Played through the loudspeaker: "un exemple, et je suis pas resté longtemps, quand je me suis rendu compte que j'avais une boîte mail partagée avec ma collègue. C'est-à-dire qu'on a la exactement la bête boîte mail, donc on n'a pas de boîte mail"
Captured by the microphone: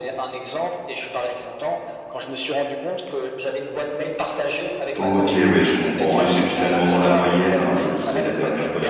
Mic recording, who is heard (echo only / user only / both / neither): both